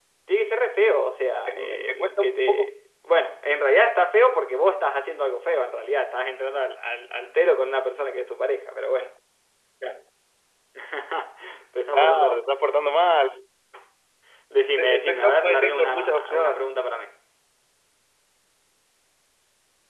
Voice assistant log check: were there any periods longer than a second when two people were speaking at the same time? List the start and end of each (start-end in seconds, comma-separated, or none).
1.5-2.7, 14.7-16.7